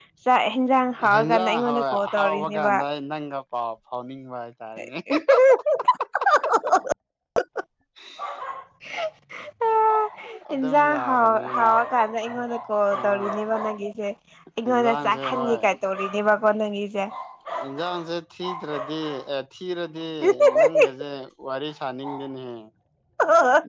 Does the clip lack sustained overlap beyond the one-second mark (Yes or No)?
No